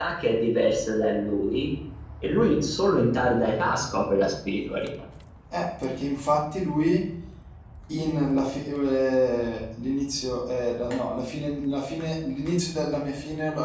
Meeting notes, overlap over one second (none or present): none